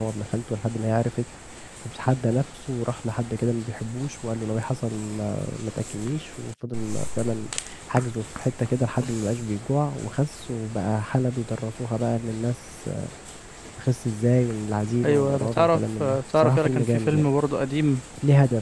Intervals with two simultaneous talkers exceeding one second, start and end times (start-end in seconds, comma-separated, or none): 15.0-17.3